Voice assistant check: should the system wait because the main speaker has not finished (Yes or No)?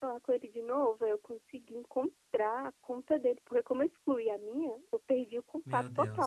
Yes